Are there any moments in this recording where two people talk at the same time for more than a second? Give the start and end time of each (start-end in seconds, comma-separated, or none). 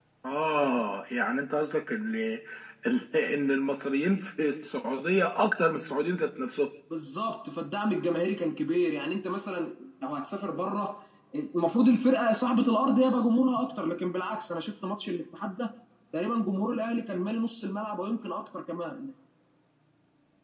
none